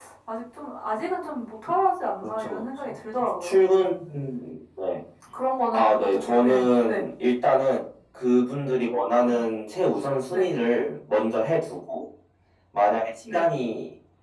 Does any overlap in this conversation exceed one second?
Yes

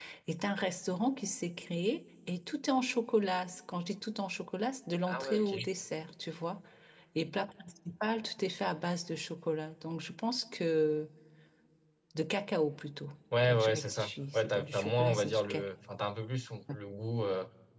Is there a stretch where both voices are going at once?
Yes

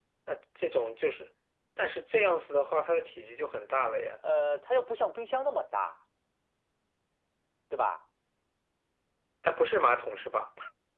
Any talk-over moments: No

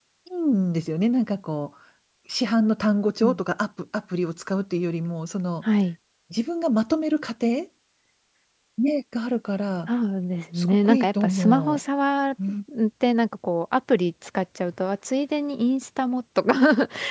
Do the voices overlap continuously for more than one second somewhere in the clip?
Yes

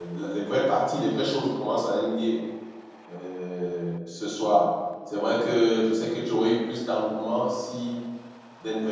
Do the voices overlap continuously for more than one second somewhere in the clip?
No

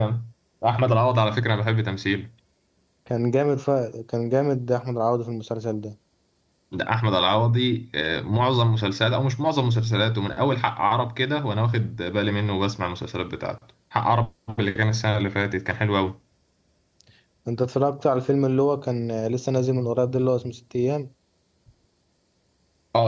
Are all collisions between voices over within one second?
Yes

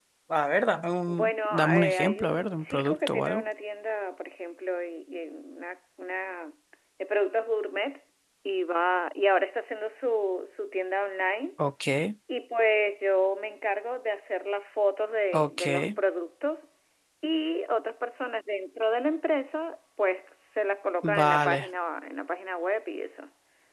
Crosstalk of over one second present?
Yes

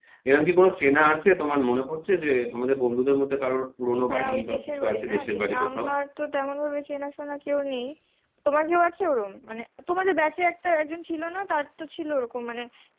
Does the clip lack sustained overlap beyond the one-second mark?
No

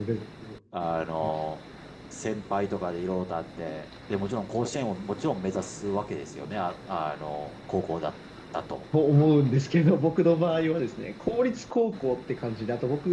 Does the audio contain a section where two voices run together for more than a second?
No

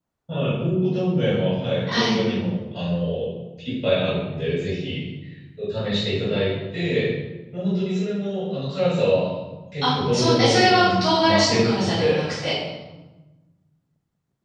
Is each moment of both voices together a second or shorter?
No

